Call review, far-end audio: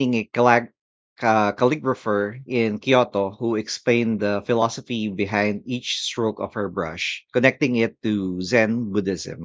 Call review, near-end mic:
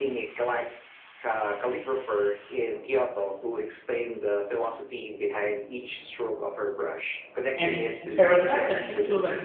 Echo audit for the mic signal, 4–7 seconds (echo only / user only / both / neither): echo only